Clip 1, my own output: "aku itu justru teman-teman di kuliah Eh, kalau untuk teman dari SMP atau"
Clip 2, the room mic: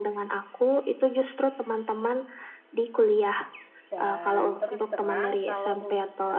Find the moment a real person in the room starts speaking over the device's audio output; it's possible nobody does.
4 s

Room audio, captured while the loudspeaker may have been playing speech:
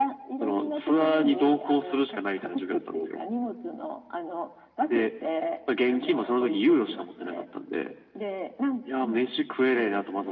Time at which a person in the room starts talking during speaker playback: none

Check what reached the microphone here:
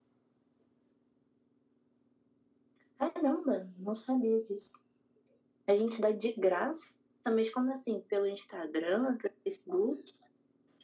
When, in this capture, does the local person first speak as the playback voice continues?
none

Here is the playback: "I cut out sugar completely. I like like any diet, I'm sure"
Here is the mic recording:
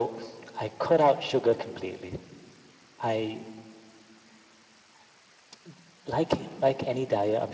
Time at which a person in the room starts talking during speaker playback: none

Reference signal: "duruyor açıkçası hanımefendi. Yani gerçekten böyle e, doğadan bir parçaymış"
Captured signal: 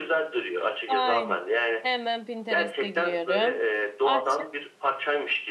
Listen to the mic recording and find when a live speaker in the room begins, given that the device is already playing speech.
1 s

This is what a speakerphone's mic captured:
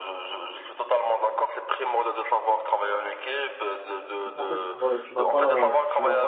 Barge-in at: 4 s

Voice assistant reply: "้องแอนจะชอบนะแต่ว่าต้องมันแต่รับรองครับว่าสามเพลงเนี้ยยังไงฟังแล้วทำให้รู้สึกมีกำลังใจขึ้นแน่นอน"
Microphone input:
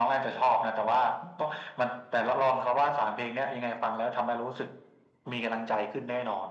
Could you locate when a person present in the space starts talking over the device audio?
none

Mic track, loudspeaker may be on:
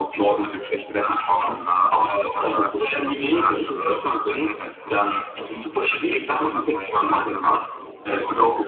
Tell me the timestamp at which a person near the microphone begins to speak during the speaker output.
none

